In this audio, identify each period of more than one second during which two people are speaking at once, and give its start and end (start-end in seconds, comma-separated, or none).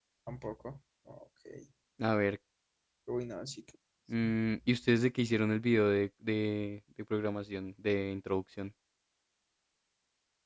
none